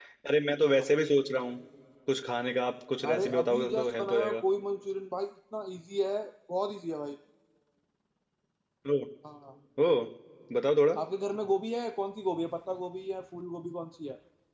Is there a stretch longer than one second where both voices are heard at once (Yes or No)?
Yes